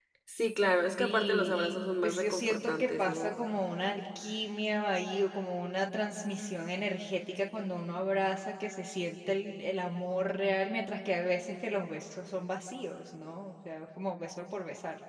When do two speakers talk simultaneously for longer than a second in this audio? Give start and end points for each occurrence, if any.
1.0-3.3

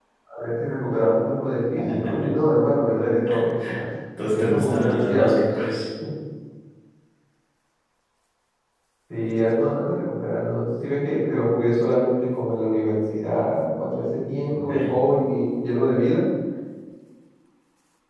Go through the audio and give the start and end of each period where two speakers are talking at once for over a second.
4.2-5.4

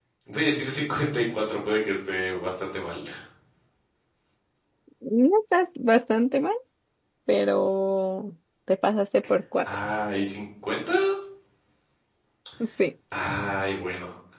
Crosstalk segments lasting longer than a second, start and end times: none

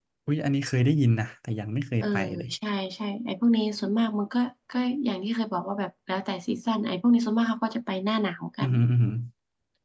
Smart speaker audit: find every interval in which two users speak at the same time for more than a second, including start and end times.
none

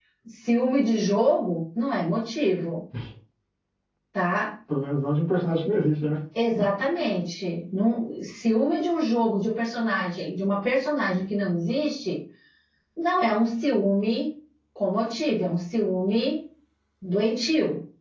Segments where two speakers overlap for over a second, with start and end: none

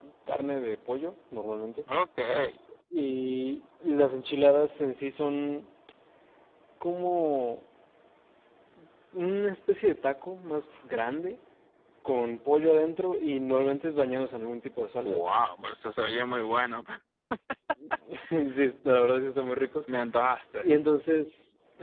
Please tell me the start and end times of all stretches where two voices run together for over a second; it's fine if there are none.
none

